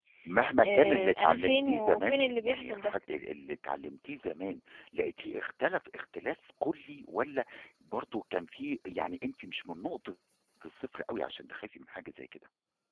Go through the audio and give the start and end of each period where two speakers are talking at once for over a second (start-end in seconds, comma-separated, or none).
0.6-2.9